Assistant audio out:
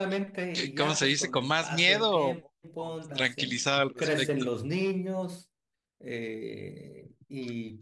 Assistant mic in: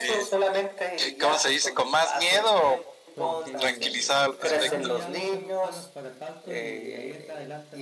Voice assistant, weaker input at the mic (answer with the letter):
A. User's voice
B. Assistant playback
A